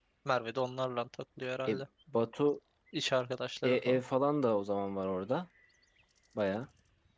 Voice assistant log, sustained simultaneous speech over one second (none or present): none